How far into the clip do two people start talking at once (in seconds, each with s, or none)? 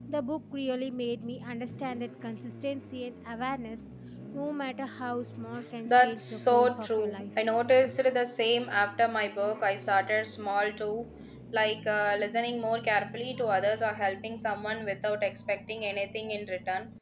5.8 s